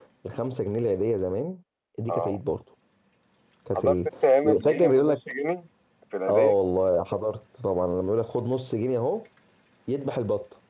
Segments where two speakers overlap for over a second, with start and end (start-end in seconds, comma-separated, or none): 3.8-5.2